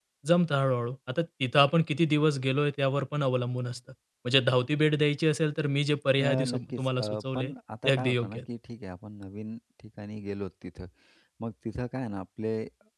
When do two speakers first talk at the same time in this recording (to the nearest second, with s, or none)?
6 s